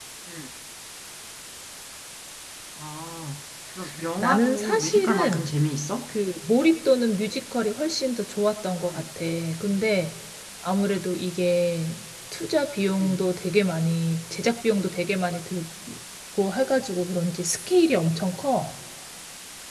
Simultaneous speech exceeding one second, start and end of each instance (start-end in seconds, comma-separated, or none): 4.2-5.5